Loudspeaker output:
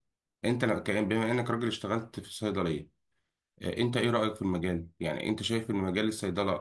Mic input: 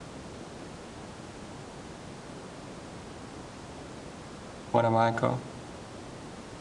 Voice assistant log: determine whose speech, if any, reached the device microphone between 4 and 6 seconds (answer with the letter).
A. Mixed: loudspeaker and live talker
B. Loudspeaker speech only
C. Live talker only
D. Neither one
C